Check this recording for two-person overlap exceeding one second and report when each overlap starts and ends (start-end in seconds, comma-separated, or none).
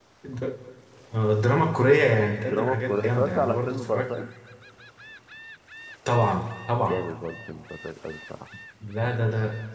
2.3-4.1